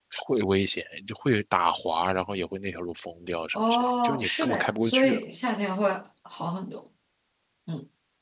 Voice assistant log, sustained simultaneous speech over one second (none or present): present